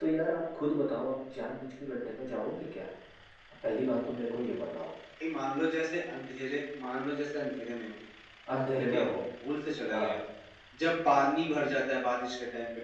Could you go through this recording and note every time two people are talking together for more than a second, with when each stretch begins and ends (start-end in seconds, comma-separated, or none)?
none